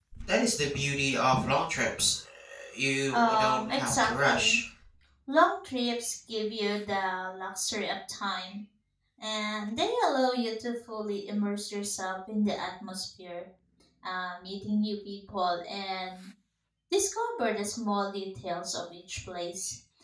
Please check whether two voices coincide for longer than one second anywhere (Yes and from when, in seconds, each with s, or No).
Yes, from 3.1 s